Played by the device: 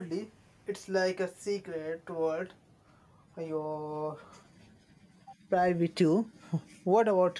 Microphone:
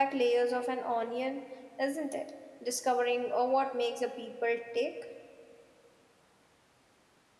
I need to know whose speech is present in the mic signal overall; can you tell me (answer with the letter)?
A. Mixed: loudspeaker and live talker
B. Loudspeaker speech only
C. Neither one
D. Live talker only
D